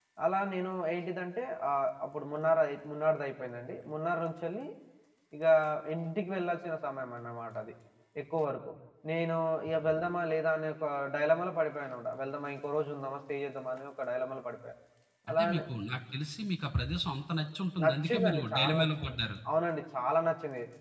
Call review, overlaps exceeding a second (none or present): present